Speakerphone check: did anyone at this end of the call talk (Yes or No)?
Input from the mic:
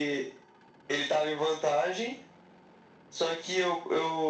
No